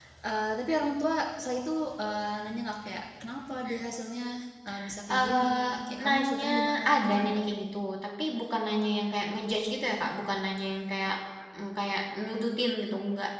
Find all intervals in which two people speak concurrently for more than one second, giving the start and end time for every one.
5.1-7.5

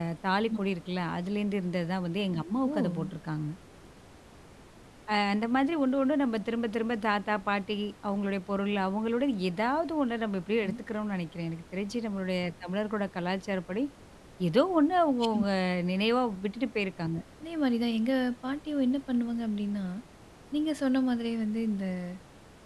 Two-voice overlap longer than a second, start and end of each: none

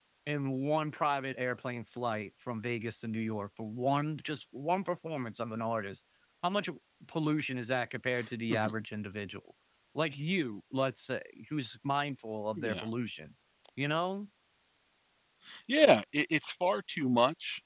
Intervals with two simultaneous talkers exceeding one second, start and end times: none

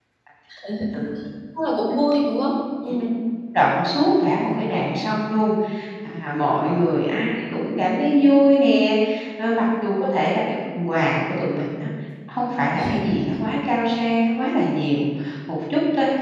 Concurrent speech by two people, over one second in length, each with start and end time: none

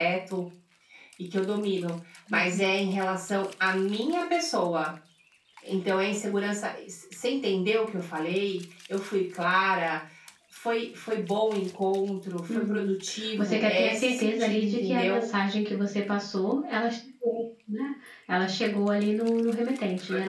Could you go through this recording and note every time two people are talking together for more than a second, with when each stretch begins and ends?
13.4-15.3

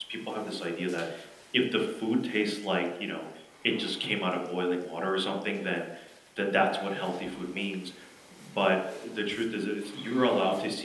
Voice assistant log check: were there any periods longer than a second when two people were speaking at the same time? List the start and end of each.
none

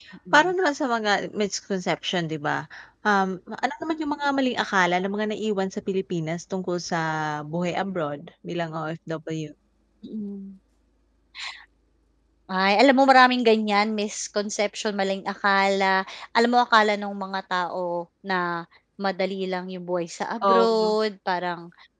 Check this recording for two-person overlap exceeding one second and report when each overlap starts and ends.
none

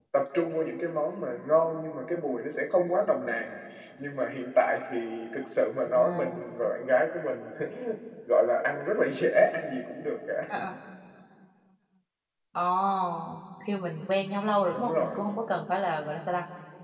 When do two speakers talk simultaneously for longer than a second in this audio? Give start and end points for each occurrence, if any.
none

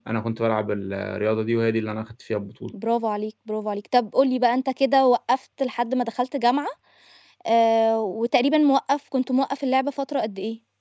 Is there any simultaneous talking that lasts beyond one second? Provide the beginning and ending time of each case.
none

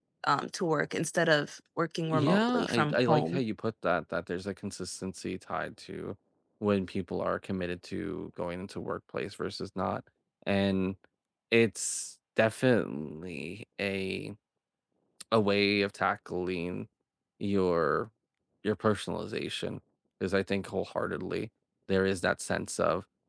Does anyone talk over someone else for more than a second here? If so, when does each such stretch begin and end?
2.1-3.4

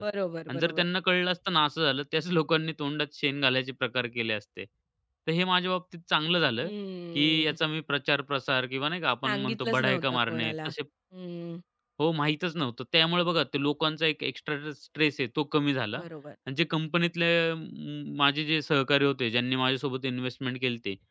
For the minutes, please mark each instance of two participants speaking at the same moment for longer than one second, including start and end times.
9.2-10.7

